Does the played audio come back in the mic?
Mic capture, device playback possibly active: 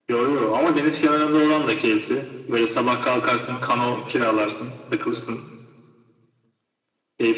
Yes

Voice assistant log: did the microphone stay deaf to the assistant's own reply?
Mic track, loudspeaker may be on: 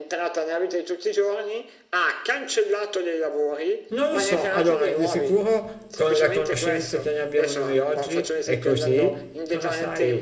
No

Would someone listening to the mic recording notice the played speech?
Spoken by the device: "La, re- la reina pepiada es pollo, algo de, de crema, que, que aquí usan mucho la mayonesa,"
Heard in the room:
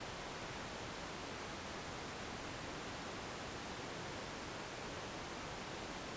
No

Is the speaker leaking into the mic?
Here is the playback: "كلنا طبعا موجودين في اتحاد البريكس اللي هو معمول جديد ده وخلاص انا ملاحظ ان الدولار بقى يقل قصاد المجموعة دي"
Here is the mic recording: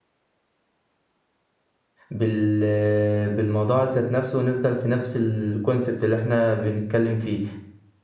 No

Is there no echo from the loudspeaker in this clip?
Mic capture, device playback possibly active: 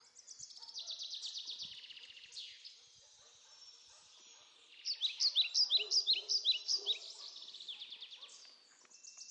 Yes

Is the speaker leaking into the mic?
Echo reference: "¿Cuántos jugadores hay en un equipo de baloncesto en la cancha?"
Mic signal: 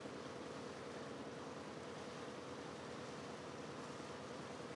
No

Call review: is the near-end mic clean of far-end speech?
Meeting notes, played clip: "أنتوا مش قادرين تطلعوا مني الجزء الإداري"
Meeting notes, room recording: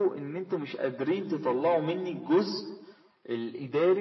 No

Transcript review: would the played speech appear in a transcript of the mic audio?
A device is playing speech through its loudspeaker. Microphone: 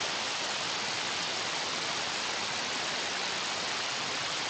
No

